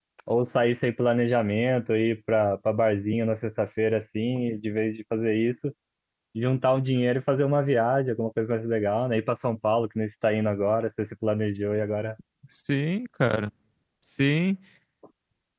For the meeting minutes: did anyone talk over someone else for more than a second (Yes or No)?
No